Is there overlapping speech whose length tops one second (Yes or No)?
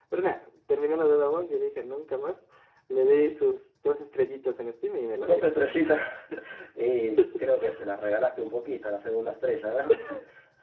No